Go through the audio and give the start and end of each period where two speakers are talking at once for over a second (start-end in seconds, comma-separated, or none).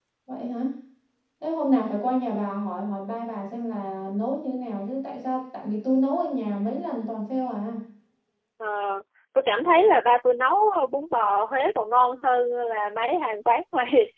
none